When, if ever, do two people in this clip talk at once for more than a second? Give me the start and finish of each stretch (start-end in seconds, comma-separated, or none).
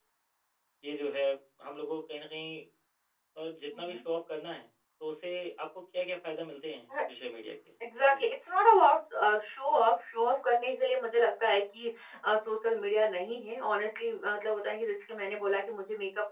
none